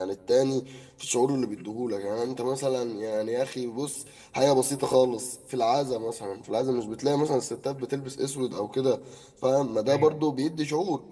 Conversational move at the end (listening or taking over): listening